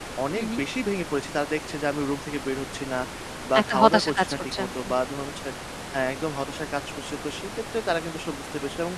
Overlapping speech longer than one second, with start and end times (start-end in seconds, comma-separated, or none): 3.6-4.9